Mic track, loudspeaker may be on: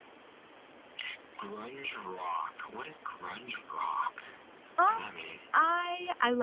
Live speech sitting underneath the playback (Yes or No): No